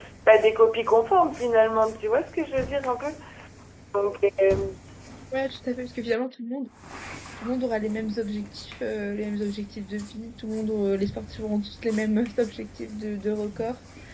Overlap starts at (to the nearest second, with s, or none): none